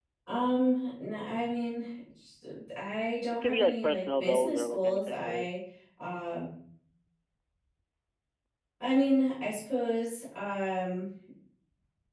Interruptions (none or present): present